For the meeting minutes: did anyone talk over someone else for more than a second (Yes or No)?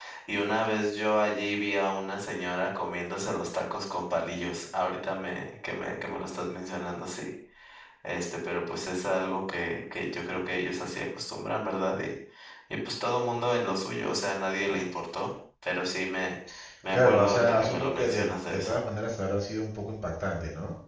Yes